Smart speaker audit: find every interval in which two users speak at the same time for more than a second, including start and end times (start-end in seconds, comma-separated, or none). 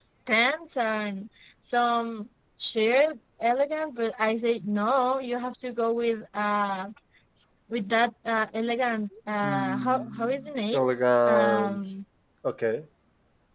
9.4-10.8